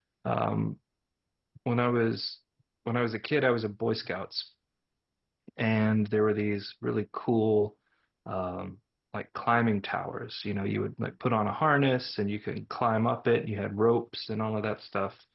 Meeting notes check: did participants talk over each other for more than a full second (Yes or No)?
No